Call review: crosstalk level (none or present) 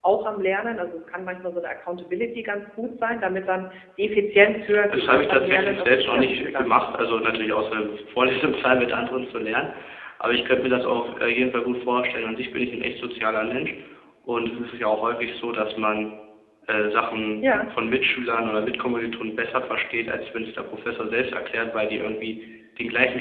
present